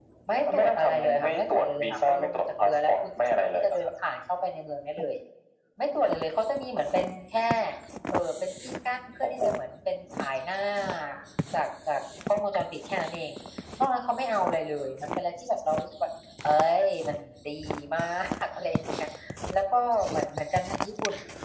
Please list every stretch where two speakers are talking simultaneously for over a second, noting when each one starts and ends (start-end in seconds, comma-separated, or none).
0.5-3.9